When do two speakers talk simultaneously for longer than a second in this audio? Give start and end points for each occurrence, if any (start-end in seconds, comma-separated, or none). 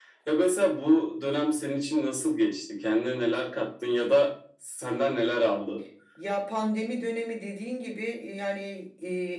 none